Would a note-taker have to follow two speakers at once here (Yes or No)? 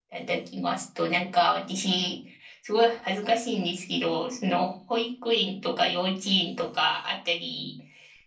No